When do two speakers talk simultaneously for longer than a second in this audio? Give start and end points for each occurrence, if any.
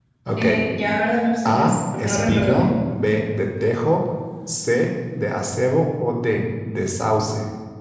1.4-2.8

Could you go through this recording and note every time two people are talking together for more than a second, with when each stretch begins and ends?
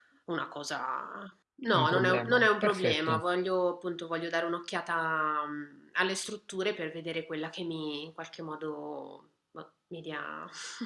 1.7-3.2

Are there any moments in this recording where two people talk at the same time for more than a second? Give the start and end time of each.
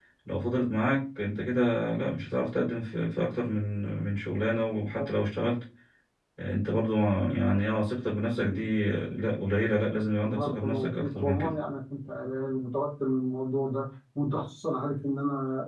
10.2-11.5

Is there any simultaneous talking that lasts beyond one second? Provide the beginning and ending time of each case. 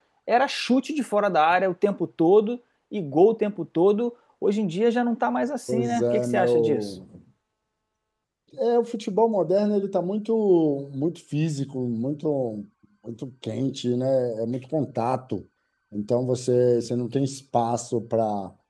5.7-6.9

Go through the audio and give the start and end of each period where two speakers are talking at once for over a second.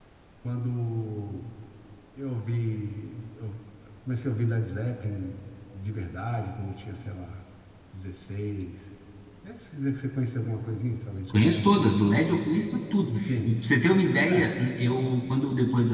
none

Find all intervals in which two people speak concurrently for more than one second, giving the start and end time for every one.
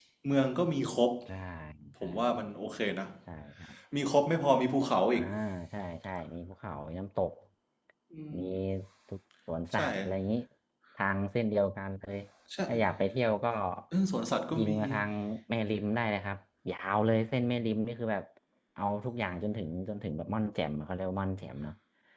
none

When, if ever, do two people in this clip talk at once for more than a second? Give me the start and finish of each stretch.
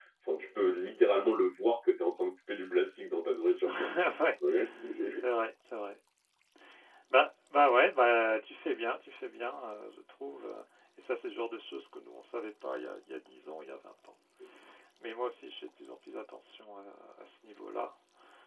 none

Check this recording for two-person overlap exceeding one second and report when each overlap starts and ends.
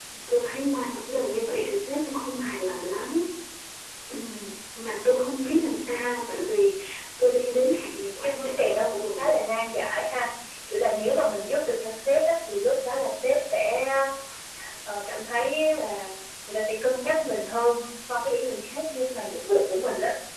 8.2-9.4

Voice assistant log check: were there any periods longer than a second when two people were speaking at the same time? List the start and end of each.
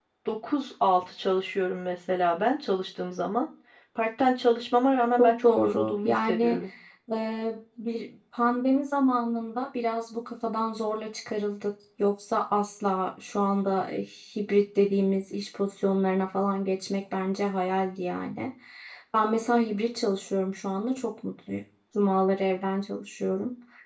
5.2-6.6

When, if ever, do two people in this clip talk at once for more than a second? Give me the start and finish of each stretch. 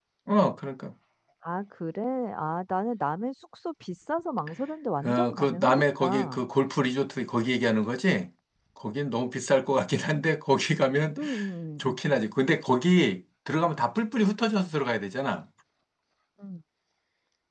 5.0-6.4

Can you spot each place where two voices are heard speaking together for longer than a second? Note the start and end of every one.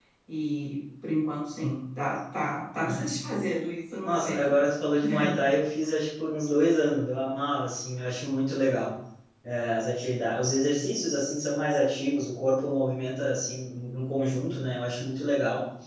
none

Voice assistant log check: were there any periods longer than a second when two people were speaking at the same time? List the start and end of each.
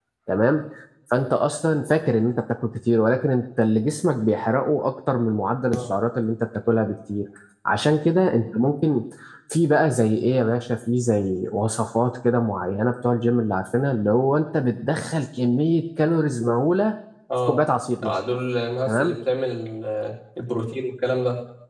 none

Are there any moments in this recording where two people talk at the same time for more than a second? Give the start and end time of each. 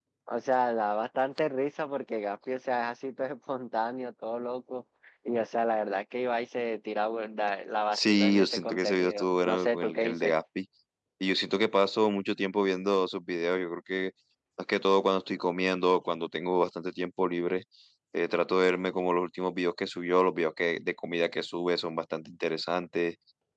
7.9-10.3

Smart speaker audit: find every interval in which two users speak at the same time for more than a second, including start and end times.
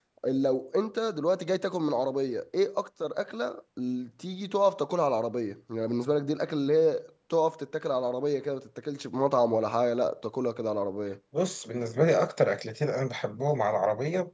none

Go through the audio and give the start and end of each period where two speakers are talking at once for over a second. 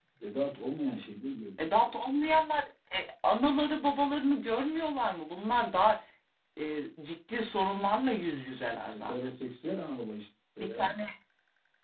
none

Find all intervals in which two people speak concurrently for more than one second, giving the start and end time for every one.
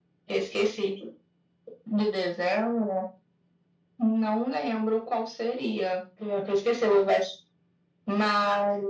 none

